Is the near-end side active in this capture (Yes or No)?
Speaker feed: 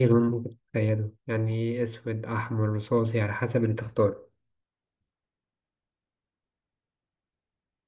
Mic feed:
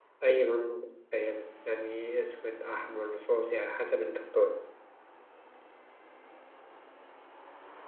No